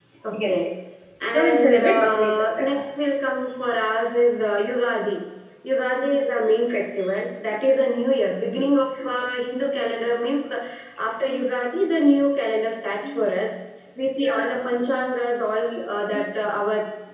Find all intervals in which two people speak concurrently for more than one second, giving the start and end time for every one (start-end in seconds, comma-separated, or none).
1.3-2.8